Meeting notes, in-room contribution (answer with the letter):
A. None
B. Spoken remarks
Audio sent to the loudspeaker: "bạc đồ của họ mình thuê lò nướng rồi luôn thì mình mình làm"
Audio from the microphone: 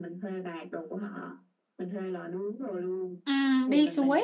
B